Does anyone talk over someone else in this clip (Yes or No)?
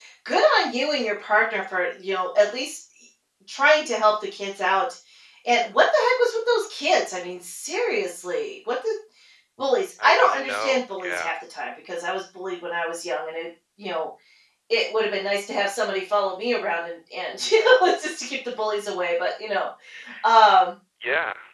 Yes